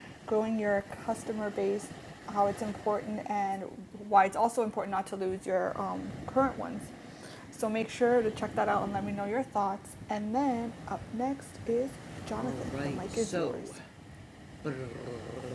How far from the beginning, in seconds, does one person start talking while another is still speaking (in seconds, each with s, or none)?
12.3 s